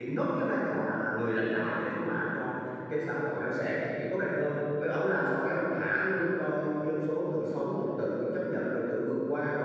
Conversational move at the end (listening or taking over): listening